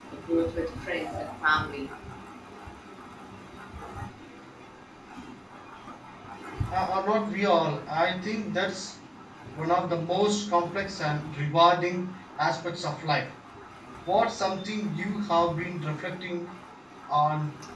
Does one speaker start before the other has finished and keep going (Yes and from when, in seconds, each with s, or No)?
No